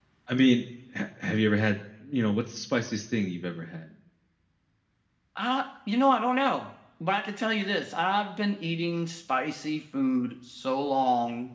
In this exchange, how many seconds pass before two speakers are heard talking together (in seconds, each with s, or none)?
none